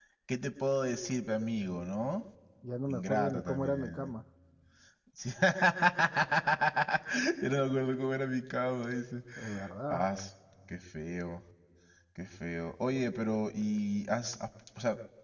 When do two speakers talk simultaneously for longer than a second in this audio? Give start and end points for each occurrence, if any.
2.9-4.1

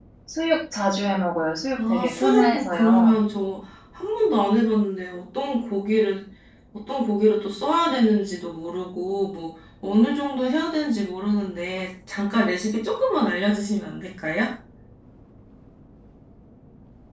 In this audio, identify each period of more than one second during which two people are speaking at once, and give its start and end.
1.8-3.1

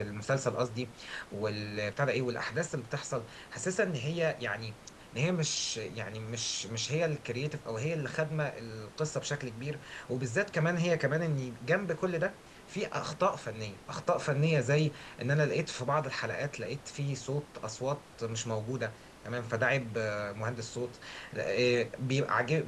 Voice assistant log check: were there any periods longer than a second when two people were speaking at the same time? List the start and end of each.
none

